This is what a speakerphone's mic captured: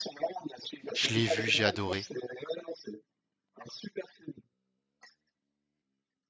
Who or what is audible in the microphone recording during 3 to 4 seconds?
echo only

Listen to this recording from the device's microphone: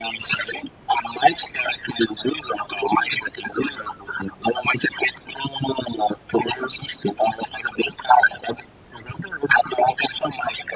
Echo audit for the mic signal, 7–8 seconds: echo only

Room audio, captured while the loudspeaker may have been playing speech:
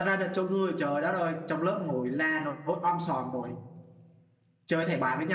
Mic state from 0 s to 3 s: user only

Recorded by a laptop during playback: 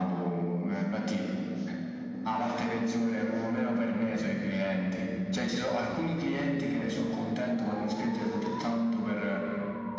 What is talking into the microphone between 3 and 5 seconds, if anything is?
echo only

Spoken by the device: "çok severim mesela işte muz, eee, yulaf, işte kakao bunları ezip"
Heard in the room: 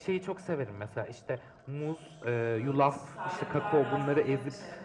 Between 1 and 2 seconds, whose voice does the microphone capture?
echo only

